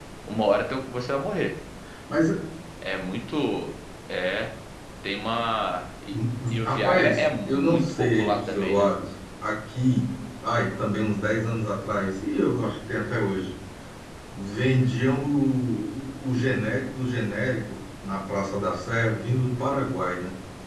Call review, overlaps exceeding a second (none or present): present